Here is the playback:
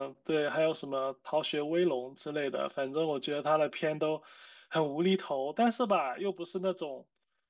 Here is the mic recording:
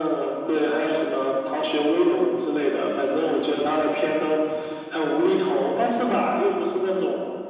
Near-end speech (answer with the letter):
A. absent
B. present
A